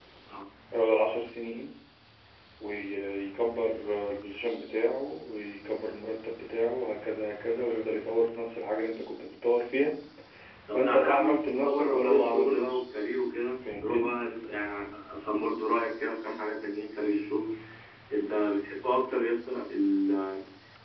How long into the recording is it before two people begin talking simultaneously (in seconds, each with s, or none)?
10.7 s